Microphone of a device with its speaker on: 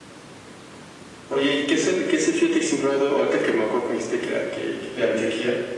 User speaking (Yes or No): No